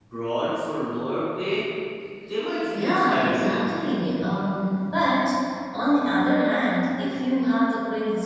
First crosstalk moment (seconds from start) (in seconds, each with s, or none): 2.7 s